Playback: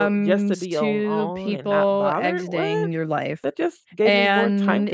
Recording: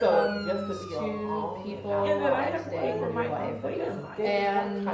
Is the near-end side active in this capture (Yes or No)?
Yes